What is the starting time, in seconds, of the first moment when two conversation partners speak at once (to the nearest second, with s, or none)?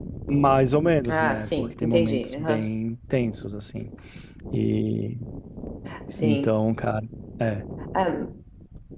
1 s